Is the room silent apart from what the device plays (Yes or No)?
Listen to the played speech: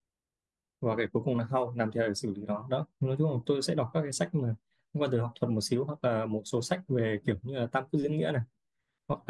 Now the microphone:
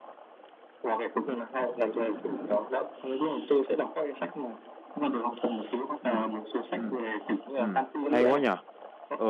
No